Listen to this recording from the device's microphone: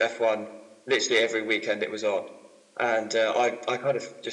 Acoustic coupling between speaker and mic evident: Yes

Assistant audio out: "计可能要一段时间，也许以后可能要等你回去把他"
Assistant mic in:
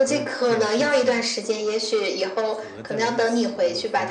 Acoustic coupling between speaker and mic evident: Yes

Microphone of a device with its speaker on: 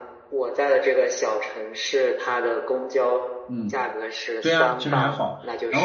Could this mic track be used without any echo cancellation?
No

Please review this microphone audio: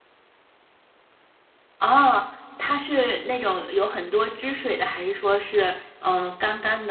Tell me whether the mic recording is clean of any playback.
Yes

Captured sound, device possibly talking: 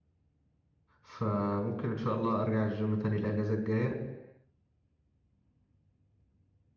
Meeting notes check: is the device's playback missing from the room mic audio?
Yes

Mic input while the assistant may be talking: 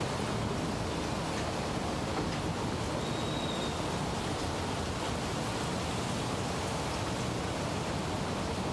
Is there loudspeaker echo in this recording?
No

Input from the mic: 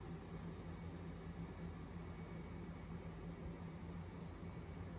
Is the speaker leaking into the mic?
No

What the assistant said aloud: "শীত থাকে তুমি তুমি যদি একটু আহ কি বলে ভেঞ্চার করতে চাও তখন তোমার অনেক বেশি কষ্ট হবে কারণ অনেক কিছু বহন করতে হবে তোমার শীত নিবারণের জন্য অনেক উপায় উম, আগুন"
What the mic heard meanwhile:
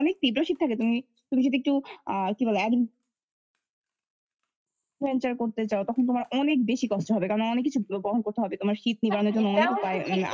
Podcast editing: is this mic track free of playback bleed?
No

